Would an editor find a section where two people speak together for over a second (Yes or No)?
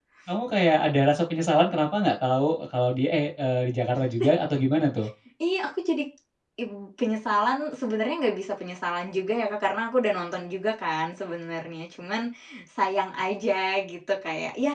No